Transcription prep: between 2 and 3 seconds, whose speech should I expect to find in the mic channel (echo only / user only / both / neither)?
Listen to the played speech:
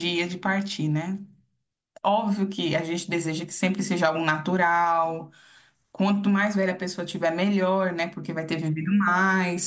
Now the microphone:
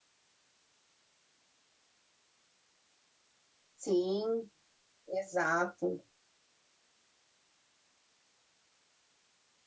neither